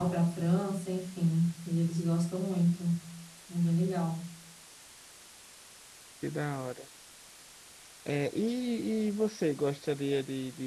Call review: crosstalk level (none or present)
none